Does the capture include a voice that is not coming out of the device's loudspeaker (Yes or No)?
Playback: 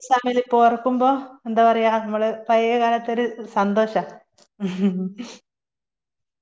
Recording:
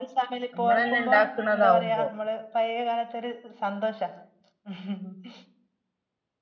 Yes